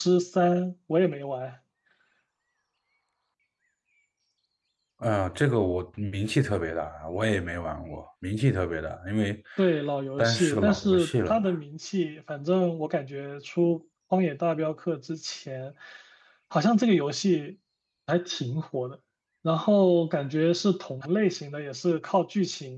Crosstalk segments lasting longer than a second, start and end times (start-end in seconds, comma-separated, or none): 10.2-11.6